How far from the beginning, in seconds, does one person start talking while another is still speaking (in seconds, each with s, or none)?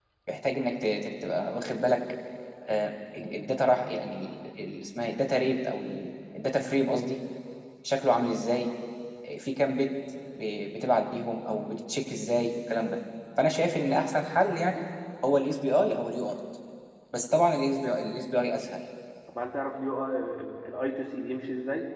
none